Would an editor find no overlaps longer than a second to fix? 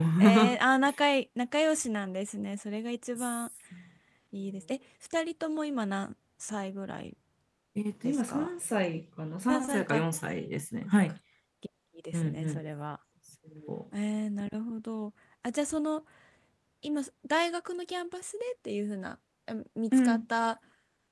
Yes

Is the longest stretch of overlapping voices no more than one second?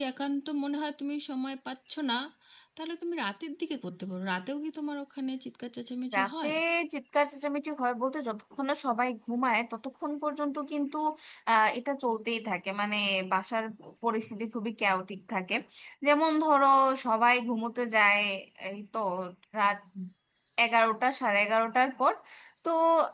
Yes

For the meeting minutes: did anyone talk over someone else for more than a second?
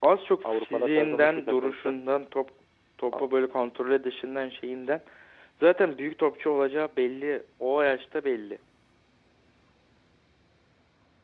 Yes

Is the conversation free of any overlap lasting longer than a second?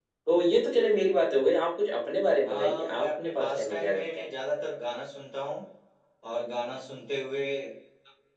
No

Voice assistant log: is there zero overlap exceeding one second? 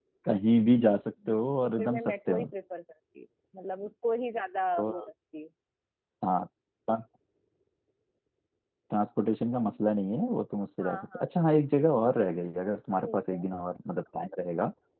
No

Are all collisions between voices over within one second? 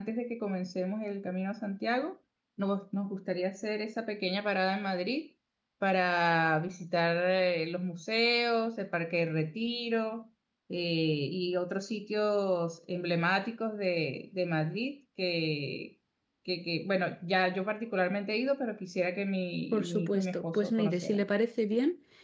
No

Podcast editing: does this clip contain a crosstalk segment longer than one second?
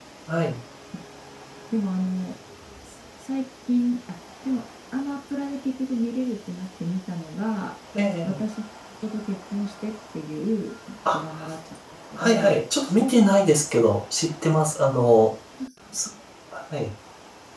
No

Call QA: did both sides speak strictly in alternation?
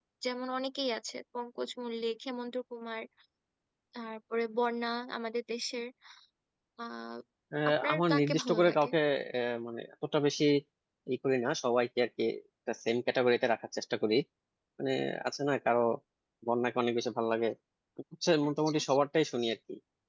No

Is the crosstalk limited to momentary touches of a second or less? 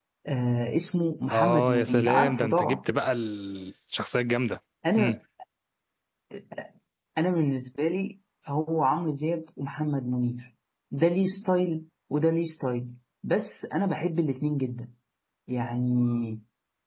No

